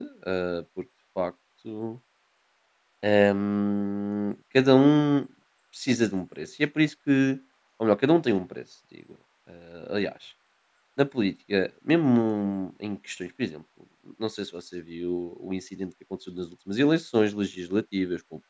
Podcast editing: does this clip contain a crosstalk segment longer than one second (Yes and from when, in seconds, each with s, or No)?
No